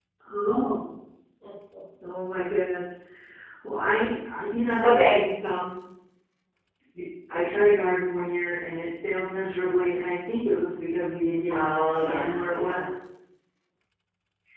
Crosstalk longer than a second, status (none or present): present